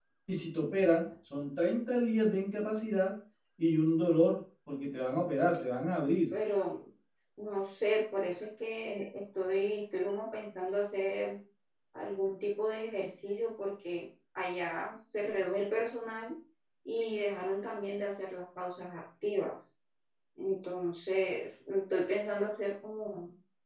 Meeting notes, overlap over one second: none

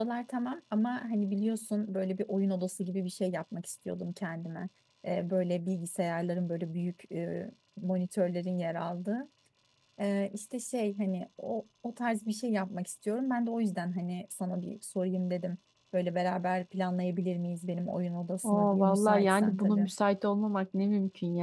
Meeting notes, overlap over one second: present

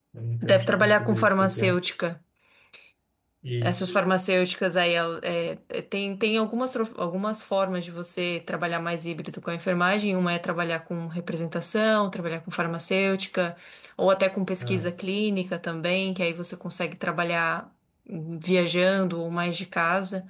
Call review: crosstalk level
present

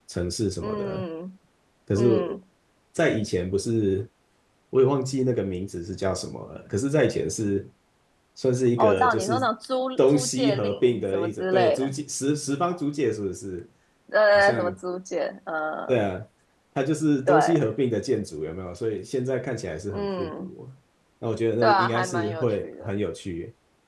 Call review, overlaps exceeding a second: present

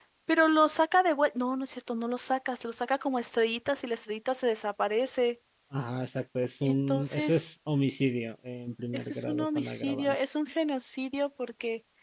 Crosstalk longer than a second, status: present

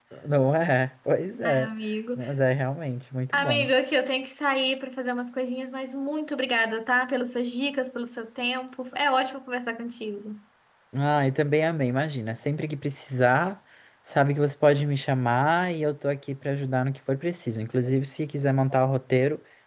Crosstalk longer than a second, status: none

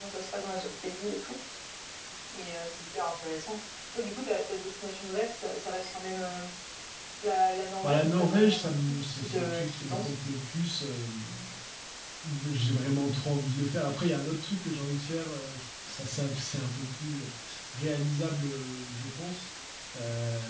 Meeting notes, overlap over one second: present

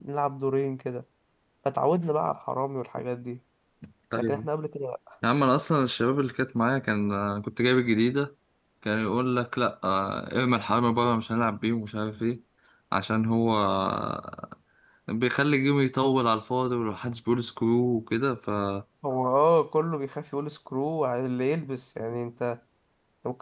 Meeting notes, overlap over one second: none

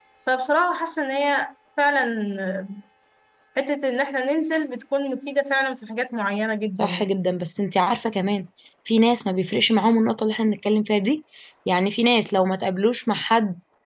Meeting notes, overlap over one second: none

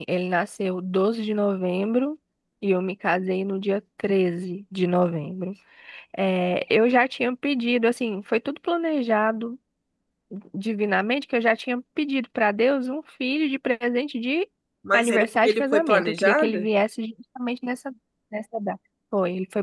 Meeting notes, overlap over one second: present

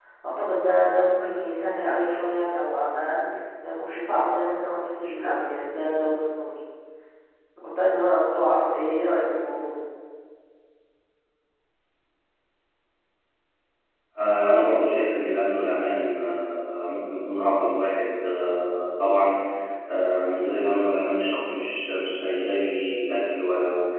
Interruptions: none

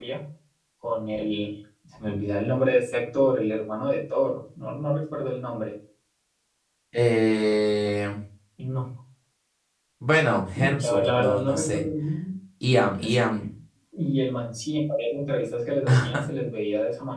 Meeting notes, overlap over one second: present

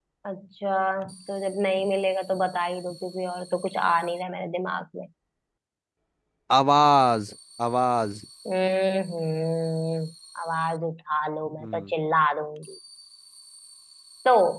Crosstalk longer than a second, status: none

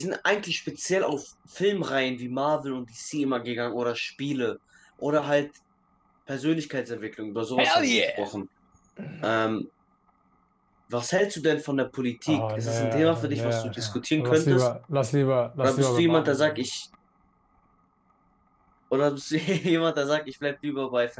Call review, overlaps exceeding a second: present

